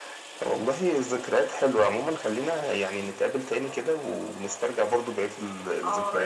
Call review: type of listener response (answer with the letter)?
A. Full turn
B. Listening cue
A